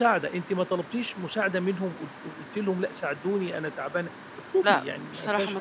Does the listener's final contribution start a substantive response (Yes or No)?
Yes